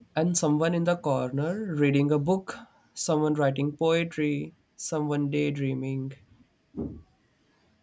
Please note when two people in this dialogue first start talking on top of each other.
none

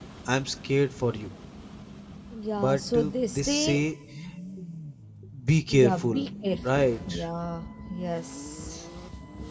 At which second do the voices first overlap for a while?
3 s

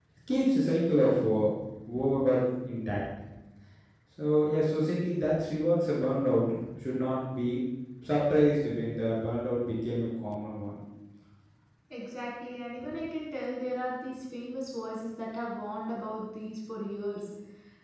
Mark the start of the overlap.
none

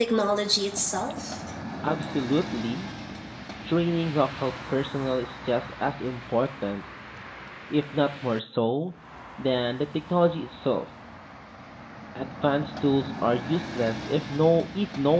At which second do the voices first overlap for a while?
none

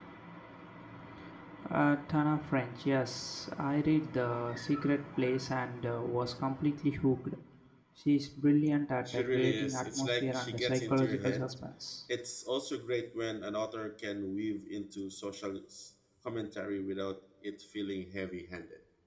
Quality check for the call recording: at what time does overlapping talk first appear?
9 s

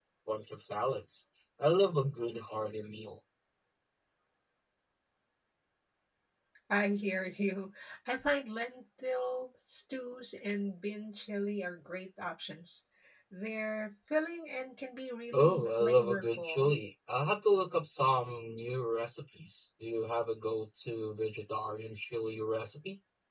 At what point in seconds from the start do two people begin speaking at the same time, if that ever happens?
15 s

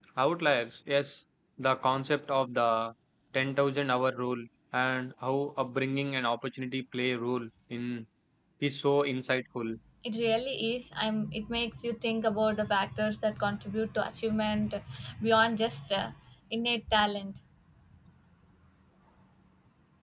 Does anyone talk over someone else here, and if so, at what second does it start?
none

